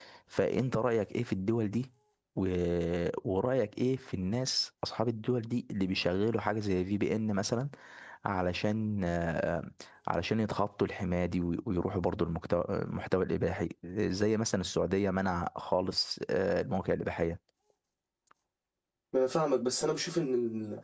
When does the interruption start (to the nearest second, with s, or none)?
none